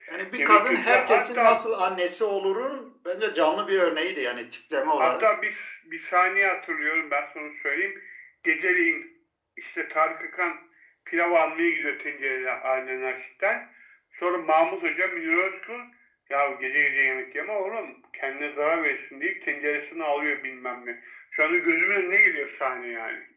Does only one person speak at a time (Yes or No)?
No